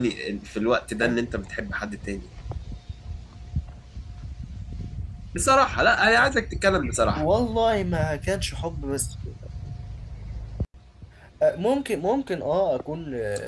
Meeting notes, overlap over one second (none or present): none